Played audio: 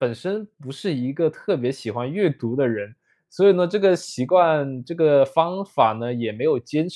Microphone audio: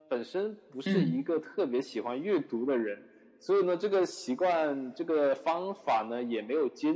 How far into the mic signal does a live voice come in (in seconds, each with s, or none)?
0.8 s